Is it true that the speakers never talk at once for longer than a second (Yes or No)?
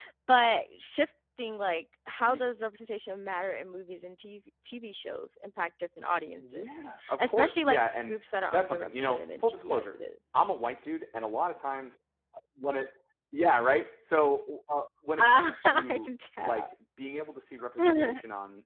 No